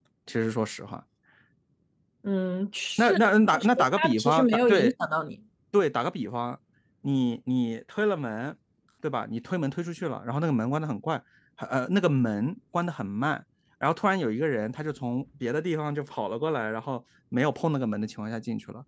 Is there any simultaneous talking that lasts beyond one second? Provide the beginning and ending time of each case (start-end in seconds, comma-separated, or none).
3.5-4.9